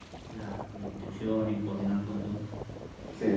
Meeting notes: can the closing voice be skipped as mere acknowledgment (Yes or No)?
No